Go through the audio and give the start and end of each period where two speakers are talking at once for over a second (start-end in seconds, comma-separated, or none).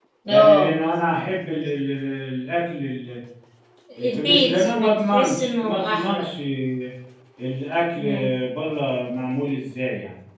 4.0-6.3